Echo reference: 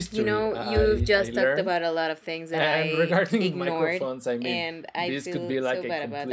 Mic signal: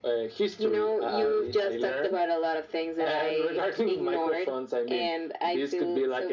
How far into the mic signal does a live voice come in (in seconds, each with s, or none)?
none